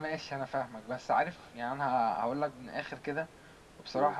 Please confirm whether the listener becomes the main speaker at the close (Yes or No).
No